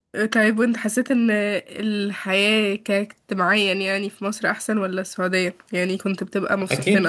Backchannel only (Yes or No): No